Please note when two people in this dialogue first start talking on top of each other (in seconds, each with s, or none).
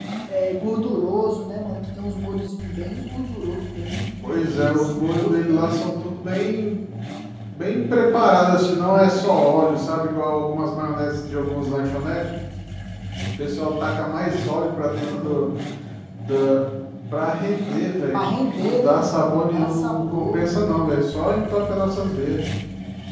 4.6 s